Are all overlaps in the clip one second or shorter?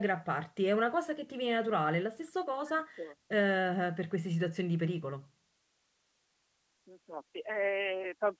Yes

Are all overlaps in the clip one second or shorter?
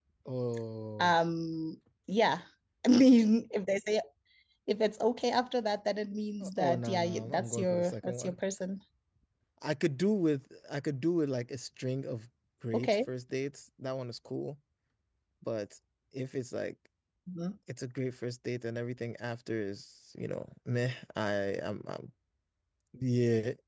No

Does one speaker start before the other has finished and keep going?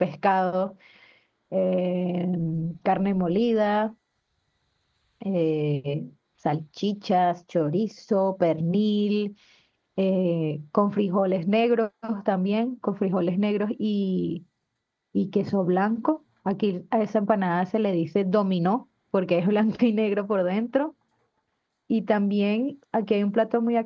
No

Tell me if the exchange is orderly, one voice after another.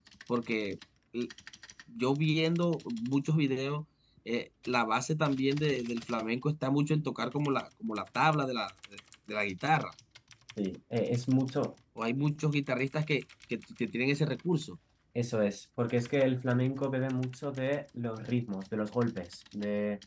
Yes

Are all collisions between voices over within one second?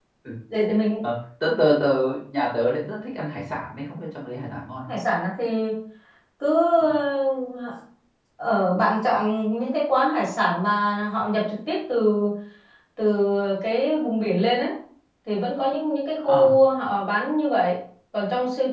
Yes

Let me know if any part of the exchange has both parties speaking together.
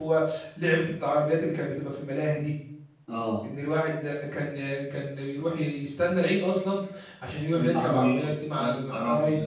Yes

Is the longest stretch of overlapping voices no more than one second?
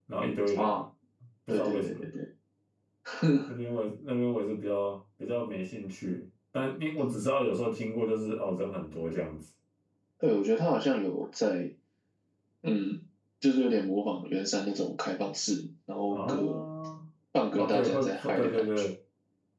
No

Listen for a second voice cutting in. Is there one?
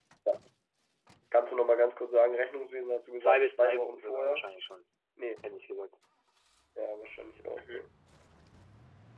Yes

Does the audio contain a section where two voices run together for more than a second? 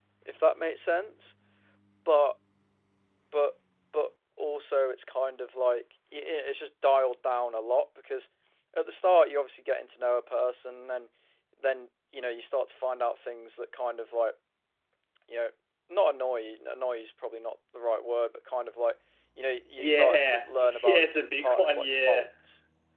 Yes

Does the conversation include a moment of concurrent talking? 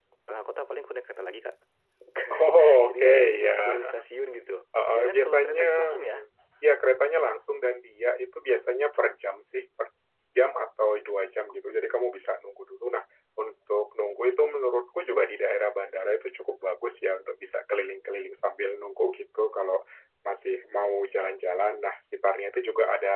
Yes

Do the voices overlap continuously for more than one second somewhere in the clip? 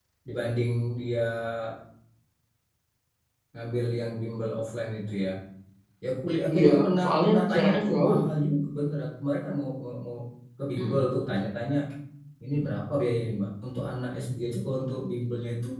Yes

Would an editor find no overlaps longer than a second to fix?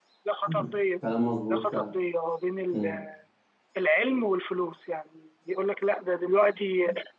Yes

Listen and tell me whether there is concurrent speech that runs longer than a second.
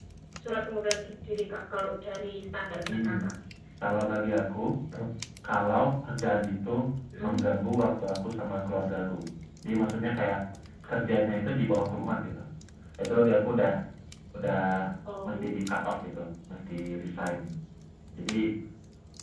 No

